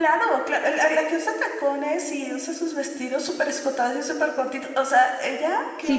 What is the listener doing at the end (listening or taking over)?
taking over